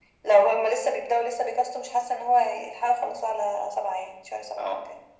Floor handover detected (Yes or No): Yes